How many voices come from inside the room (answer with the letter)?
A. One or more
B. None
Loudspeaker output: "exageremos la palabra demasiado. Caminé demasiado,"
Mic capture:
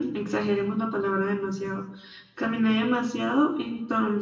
B